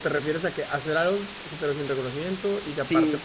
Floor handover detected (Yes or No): Yes